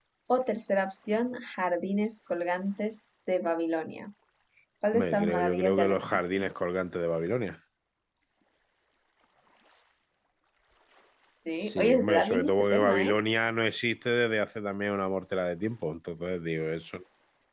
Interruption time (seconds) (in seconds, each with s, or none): 4.9 s